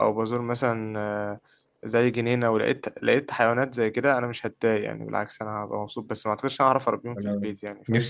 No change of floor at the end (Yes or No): No